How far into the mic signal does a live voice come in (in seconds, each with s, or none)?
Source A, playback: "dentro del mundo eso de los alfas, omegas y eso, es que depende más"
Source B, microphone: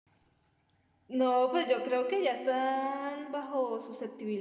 1.1 s